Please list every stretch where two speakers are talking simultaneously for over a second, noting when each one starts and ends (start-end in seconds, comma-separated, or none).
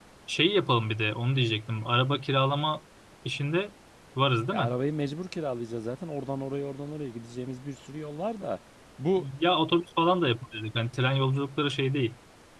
none